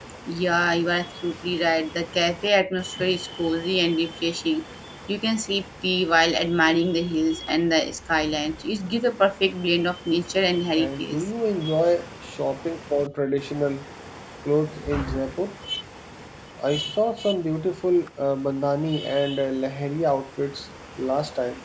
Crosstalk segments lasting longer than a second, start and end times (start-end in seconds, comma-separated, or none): none